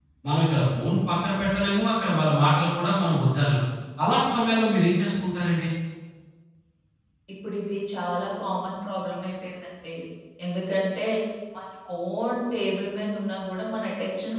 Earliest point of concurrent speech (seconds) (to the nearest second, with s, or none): none